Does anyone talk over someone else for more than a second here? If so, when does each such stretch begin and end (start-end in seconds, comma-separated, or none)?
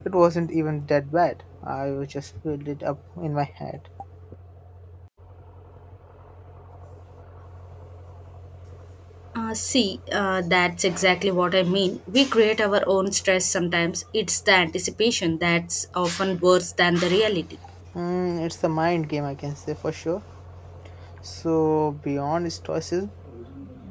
none